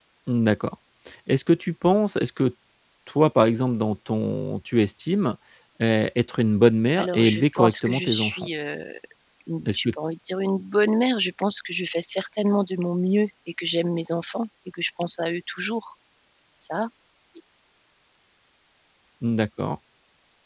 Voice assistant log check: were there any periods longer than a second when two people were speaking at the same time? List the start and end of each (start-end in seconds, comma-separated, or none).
7.0-8.3